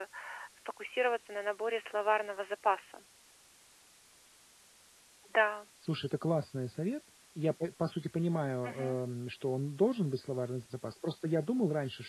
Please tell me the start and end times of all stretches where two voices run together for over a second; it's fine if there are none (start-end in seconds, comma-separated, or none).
none